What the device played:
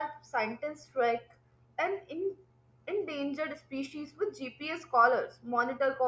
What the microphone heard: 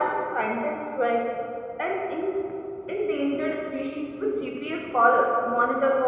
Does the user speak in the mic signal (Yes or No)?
No